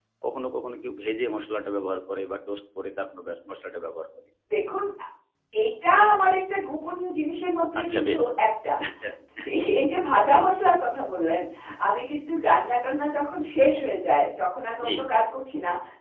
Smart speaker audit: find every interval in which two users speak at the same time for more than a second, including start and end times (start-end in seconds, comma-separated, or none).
none